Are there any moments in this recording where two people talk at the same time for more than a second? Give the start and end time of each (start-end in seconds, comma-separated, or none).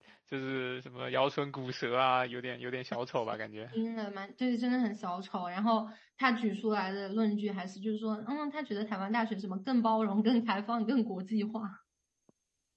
none